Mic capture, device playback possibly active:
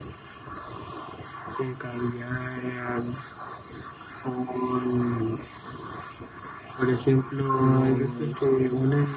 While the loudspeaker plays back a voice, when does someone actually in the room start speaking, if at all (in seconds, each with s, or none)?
7.6 s